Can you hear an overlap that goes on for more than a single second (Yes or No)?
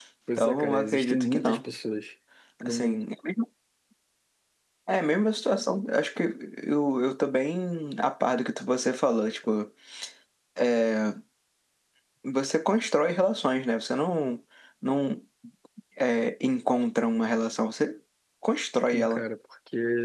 Yes